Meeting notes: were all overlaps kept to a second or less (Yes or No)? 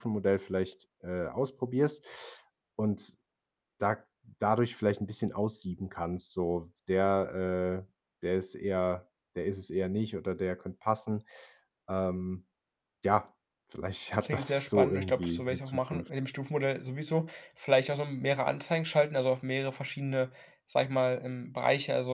No